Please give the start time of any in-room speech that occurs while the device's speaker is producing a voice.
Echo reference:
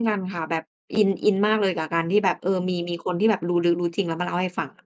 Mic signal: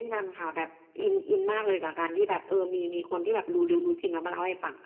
none

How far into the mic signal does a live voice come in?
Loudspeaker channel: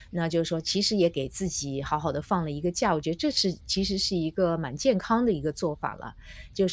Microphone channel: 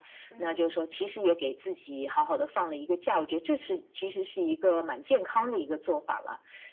0.3 s

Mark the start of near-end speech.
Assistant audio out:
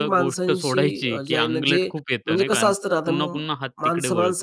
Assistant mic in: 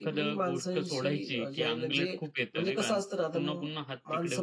none

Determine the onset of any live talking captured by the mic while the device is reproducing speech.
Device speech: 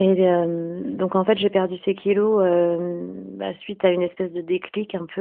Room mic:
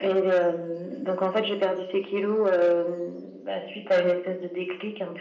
none

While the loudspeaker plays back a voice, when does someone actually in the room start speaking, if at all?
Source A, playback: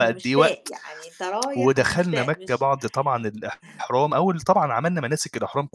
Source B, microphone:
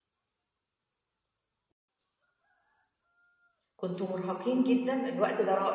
3.8 s

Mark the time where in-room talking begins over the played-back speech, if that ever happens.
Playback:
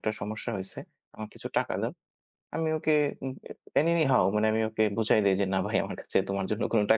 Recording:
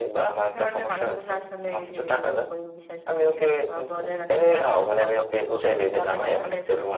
0.5 s

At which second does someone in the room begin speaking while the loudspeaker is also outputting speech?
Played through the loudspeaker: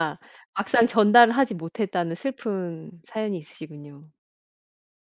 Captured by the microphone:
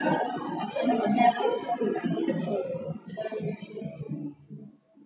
none

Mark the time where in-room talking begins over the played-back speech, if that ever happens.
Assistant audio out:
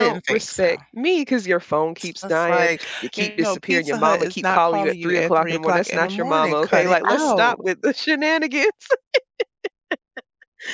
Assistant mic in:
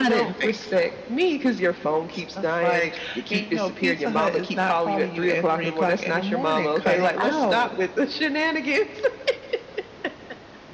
none

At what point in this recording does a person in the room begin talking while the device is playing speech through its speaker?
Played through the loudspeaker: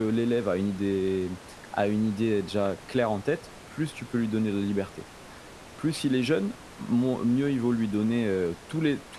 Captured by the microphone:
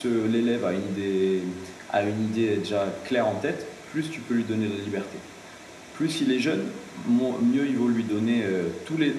none

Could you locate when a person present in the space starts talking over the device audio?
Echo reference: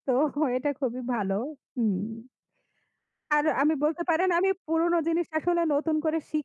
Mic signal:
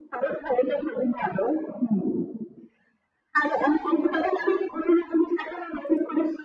none

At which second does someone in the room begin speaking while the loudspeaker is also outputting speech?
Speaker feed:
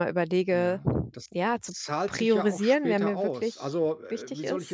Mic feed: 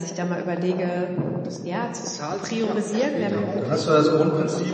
3.2 s

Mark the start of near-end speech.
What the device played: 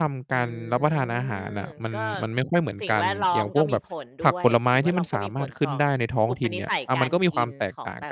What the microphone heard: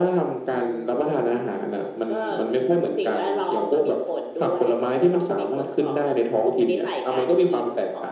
none

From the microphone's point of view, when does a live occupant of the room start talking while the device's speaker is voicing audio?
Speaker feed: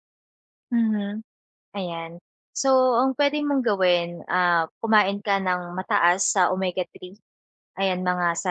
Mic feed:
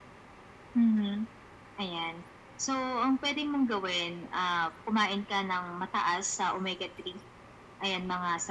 none

